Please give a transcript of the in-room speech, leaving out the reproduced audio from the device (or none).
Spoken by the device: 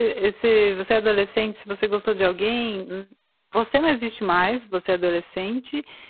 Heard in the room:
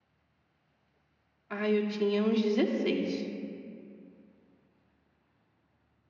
Ah, eu tinha uns 16.